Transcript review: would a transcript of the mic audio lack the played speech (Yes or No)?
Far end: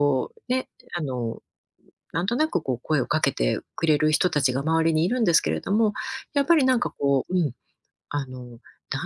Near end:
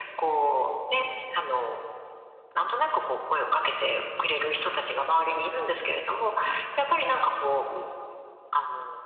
No